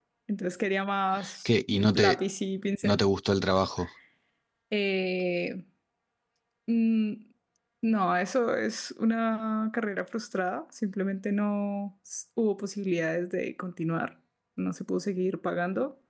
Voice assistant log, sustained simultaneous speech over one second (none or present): none